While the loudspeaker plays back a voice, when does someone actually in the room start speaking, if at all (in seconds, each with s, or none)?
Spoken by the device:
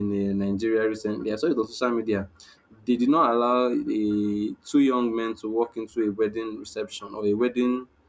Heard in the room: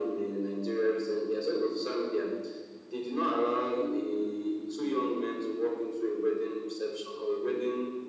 none